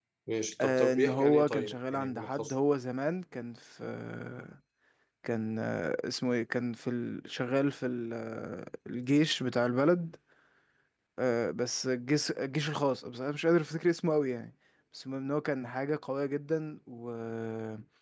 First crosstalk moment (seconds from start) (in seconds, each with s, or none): 0.6 s